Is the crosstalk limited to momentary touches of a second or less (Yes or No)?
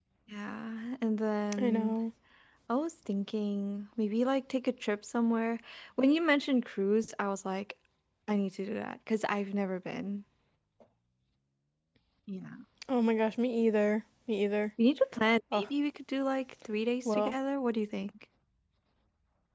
Yes